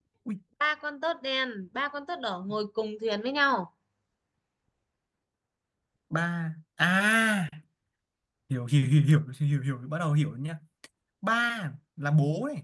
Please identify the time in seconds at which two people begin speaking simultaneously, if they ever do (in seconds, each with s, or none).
none